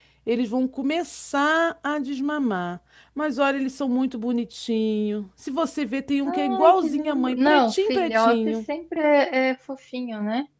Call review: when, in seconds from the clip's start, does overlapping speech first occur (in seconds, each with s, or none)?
6.2 s